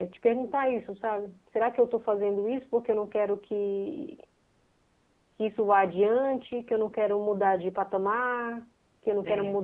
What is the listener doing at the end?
listening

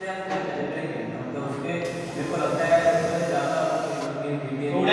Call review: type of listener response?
taking over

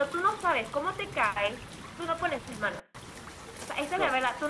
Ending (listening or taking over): listening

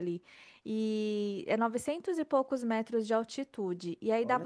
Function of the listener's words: listening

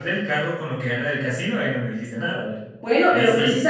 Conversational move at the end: taking over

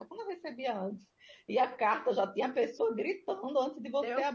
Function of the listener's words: taking over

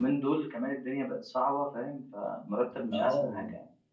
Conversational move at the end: taking over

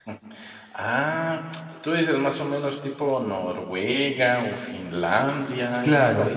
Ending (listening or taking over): taking over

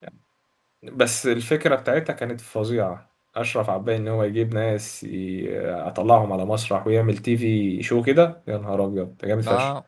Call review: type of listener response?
taking over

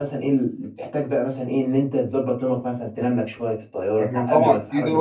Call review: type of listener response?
taking over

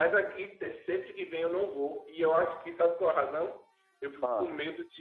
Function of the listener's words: listening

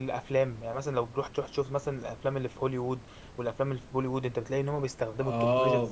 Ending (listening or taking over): taking over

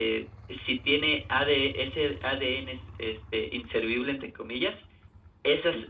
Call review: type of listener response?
listening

